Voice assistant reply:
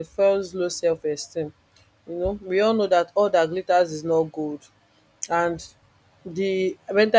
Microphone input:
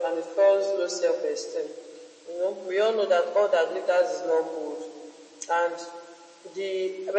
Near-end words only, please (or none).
none